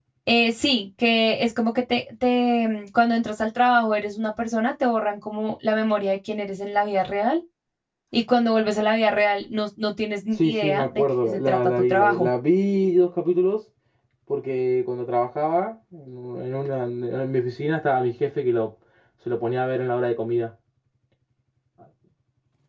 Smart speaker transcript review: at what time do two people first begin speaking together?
10.4 s

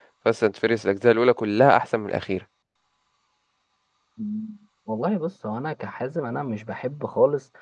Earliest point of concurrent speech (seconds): none

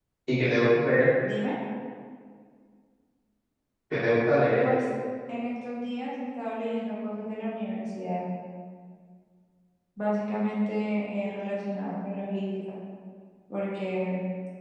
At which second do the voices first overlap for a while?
none

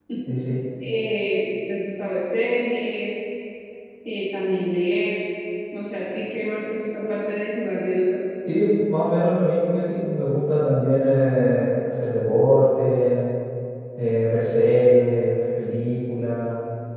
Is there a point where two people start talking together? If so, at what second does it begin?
none

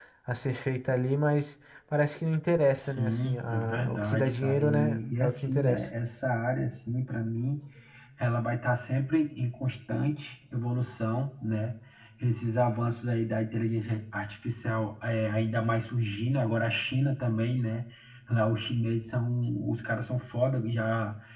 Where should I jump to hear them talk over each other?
2.7 s

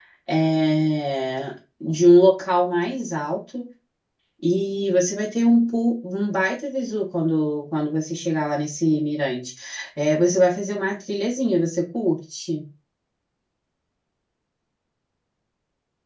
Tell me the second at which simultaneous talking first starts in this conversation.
none

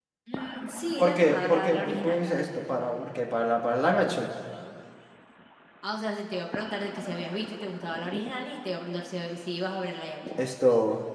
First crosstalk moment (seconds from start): 1.0 s

